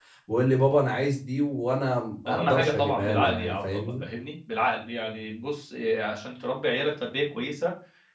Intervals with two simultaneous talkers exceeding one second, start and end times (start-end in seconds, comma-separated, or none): 2.3-4.0